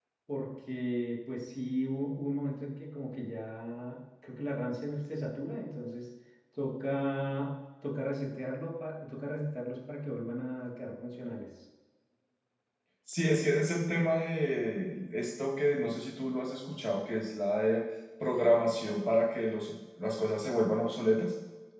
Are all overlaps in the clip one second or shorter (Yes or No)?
Yes